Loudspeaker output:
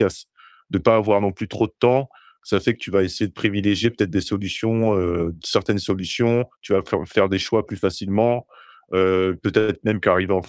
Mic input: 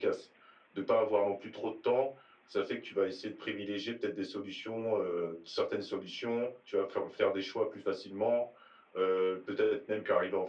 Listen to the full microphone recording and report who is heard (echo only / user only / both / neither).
echo only